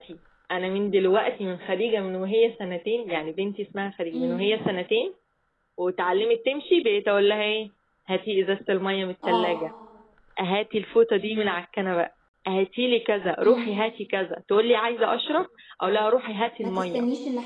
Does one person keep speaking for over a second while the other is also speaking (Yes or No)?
No